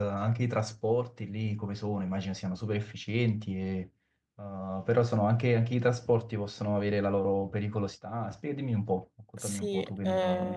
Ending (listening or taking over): taking over